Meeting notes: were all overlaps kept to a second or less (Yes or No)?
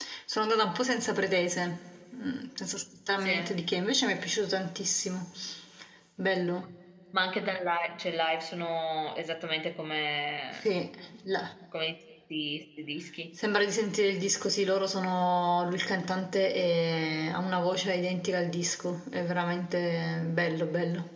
Yes